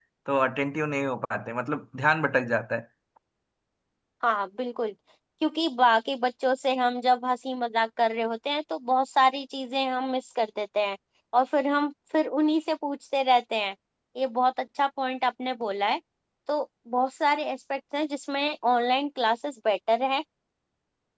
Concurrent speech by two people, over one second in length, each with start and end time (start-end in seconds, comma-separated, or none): none